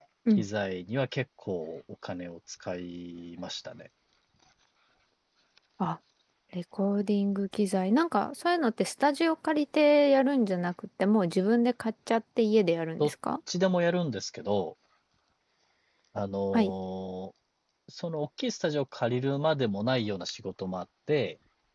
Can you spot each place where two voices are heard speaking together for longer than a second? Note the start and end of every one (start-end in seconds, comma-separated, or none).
none